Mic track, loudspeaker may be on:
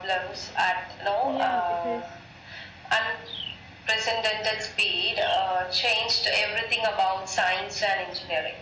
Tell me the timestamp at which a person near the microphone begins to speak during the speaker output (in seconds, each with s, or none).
1.2 s